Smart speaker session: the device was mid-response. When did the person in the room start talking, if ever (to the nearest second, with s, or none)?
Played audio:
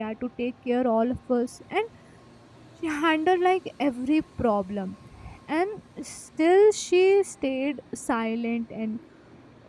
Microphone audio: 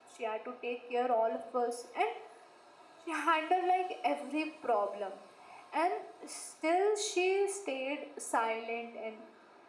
none